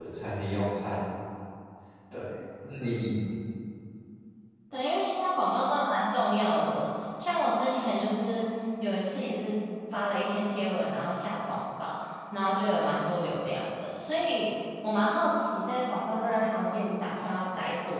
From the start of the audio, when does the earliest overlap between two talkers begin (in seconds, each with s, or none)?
none